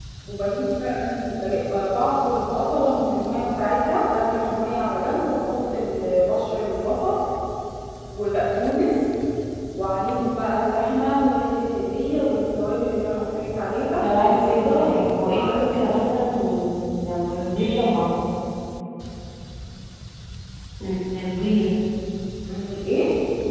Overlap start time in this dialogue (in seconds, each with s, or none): 14.0 s